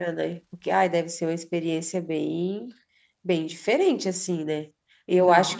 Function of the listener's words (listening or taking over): listening